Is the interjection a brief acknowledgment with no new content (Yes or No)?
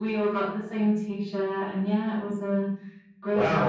No